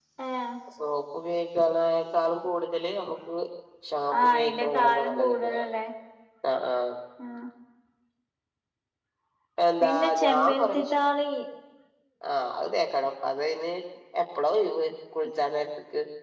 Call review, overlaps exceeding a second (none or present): present